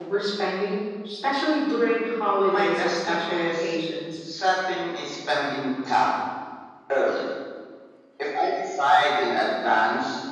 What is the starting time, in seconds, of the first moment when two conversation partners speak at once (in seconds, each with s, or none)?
2.5 s